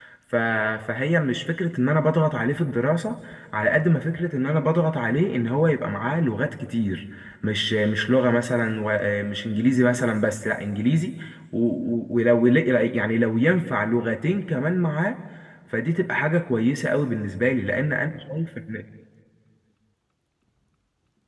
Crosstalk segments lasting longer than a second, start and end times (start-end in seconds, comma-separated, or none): none